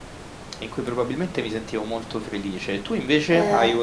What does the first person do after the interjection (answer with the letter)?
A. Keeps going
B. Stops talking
A